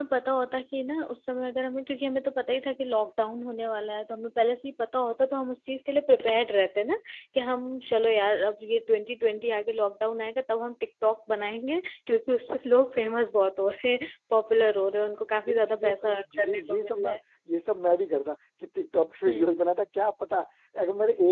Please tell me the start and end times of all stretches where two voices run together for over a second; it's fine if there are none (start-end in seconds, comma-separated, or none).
15.5-17.2